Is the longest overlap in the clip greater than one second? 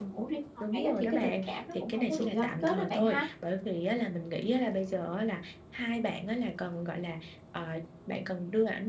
Yes, from 0.7 s

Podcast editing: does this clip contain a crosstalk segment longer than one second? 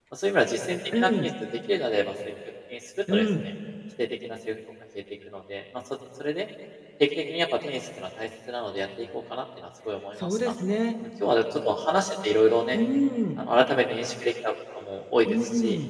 No

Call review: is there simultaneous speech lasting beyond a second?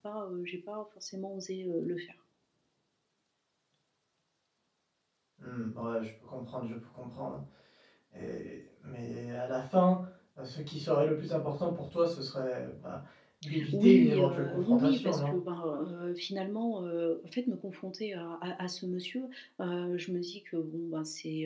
Yes, from 13.7 s

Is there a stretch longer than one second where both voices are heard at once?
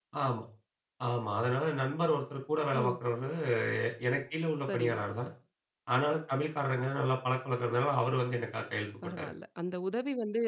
No

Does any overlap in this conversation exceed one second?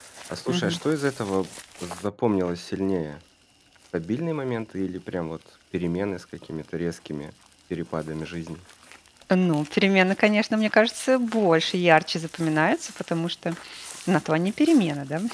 No

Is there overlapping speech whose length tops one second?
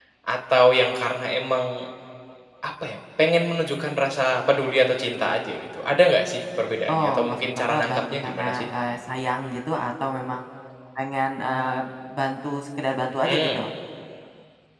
Yes, from 6.9 s

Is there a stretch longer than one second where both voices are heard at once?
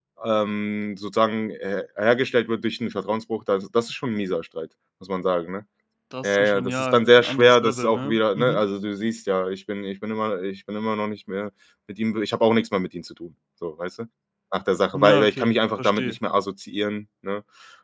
Yes, from 6.2 s

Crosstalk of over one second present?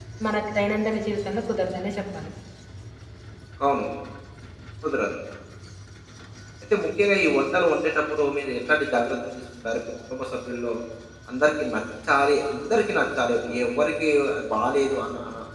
No

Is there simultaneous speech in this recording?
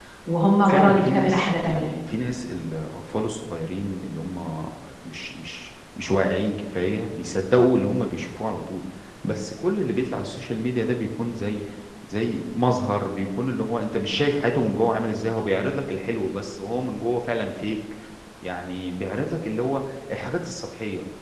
Yes, from 0.7 s

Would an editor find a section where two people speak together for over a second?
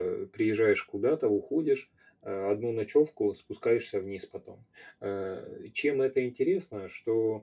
No

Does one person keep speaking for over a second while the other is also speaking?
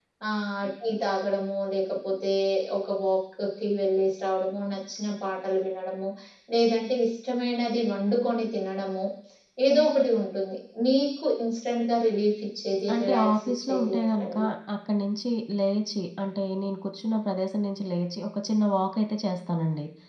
Yes, from 12.9 s

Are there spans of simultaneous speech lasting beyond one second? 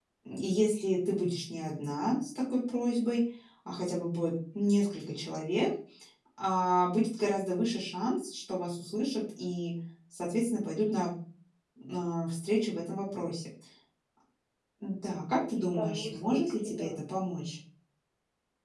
Yes, from 15.6 s

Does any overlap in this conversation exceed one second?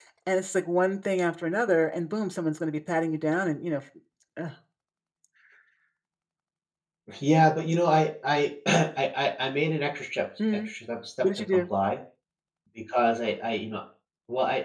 No

